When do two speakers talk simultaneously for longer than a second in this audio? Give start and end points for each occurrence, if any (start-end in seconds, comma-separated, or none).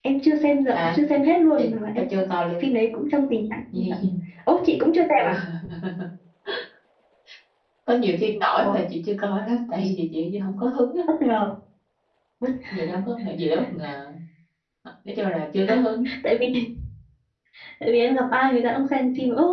none